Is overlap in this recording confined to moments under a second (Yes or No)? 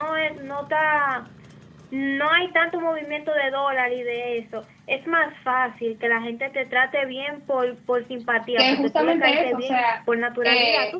No